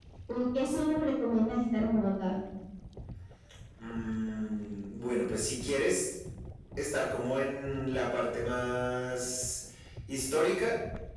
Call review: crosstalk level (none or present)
none